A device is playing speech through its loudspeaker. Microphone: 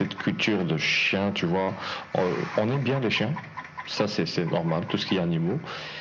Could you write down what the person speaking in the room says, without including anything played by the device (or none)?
none